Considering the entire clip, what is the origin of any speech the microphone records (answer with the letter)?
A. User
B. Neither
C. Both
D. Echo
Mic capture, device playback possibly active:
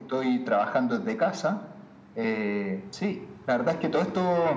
D